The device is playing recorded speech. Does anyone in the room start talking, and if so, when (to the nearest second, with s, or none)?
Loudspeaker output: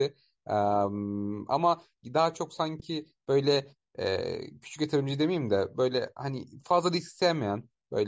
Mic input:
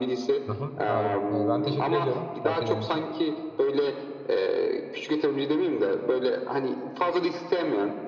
0 s